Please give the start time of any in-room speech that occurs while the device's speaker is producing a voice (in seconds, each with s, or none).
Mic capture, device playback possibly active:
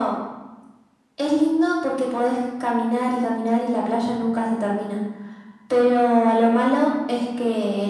none